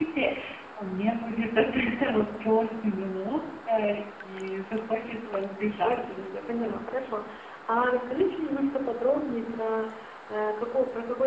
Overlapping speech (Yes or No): Yes